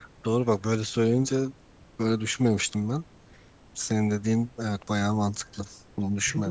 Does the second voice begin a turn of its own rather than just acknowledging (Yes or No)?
Yes